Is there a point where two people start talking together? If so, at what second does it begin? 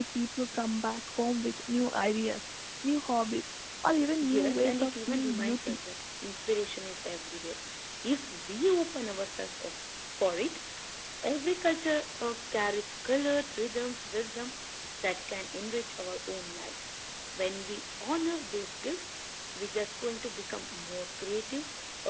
4 s

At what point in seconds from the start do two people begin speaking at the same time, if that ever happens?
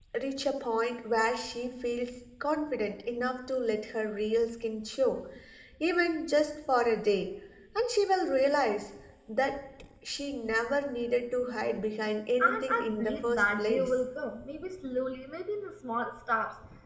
12 s

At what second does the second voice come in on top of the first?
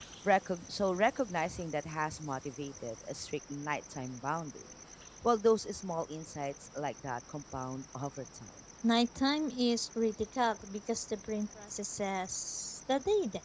none

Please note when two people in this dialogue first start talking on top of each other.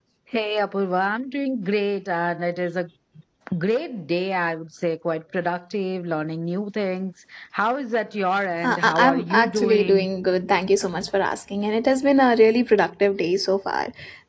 9 s

